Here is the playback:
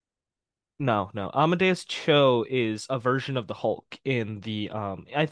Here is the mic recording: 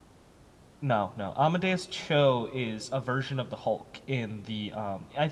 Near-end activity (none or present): none